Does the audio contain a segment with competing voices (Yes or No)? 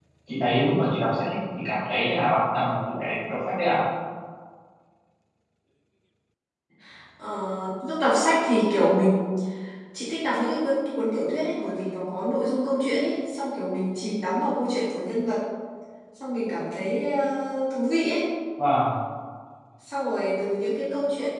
No